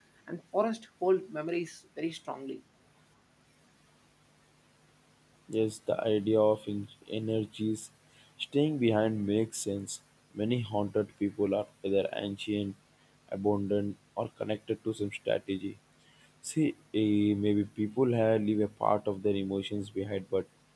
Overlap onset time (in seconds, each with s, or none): none